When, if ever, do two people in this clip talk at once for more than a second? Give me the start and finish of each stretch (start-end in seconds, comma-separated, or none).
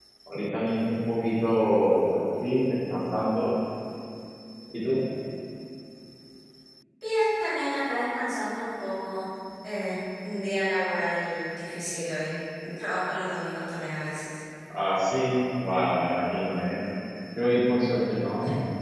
none